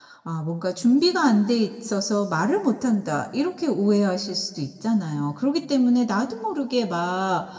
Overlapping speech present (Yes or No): No